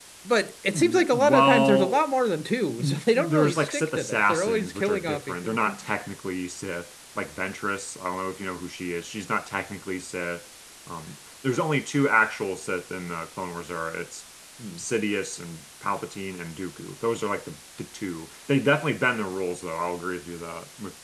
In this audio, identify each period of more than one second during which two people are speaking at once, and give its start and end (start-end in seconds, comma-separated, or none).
0.7-2.0, 2.8-5.6